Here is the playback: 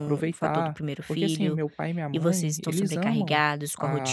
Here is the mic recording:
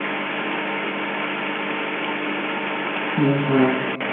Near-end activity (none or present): present